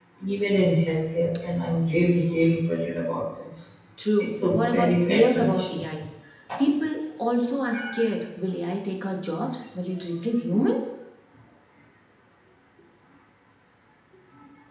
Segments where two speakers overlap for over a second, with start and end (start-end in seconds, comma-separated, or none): 4.2-5.8